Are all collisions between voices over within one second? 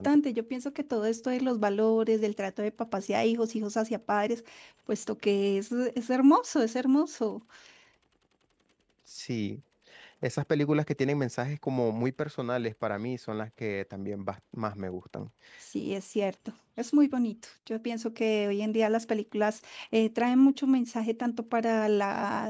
Yes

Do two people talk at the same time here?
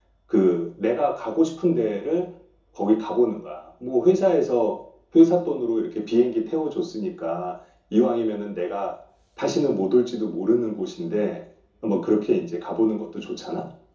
No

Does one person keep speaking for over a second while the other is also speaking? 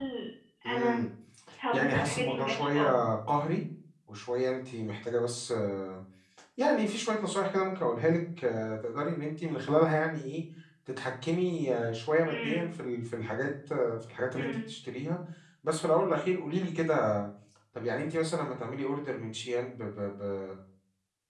Yes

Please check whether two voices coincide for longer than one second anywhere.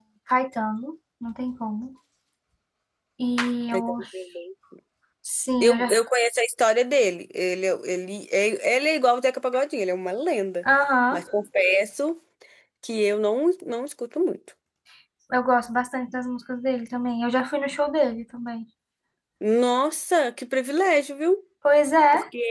No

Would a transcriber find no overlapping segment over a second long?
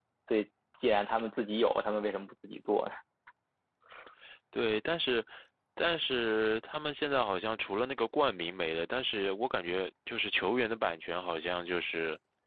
Yes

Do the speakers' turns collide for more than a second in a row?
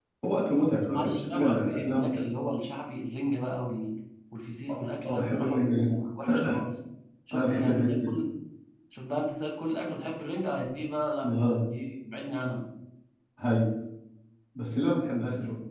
Yes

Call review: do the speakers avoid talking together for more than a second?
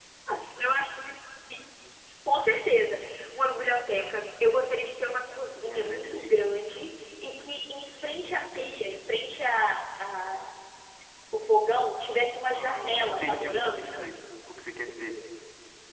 No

